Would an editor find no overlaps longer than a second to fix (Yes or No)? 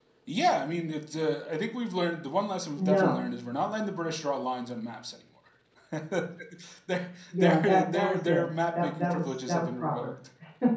No